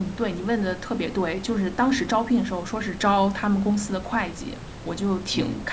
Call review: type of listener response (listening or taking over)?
listening